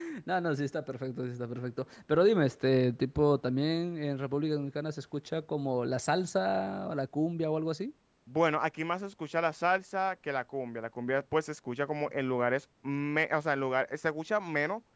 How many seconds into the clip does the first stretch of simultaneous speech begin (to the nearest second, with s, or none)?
none